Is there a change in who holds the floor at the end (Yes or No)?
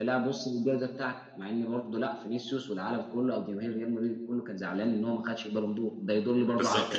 Yes